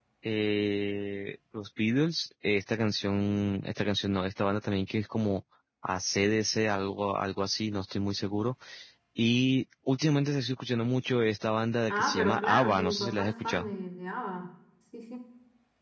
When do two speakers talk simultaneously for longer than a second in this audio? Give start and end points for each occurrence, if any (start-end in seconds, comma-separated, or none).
11.9-13.7